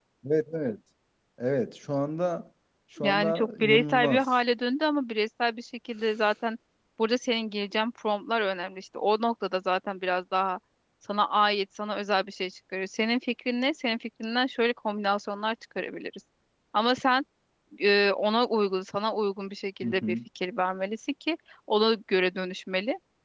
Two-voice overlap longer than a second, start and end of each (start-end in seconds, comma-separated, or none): 3.0-4.3